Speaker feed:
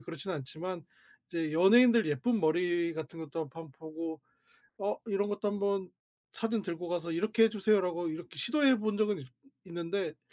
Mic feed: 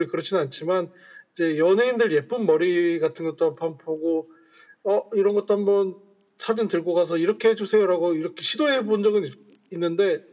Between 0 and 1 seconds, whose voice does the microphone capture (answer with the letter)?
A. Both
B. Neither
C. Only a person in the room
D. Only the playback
D